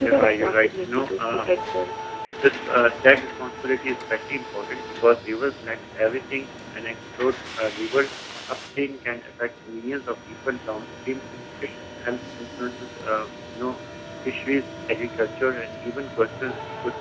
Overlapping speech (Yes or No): Yes